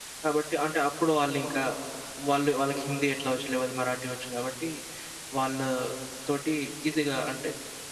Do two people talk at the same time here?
No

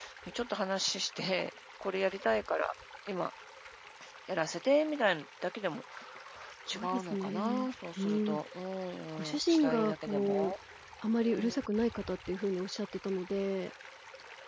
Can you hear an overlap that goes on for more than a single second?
Yes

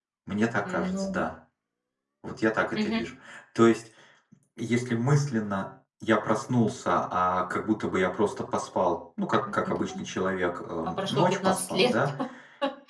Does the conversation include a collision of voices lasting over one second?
Yes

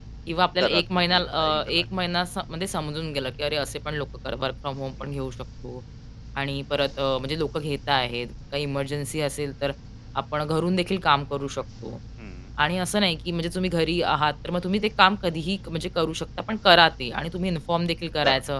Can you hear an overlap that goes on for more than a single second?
Yes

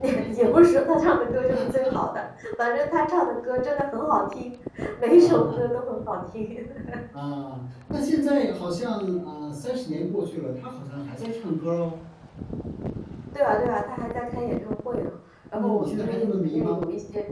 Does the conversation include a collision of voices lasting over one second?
Yes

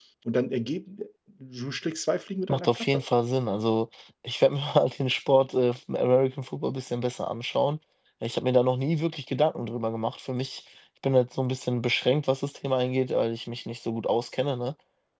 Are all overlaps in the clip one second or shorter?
Yes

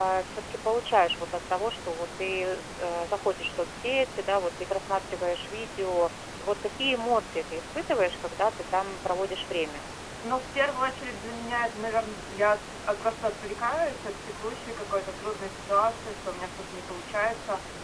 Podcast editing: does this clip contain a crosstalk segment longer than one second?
No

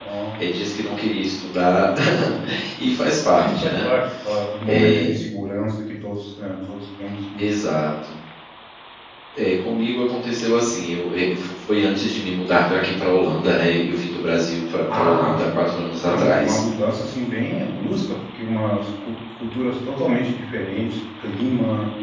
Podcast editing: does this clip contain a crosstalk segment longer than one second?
No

